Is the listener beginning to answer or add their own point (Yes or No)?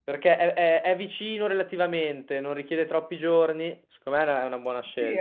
Yes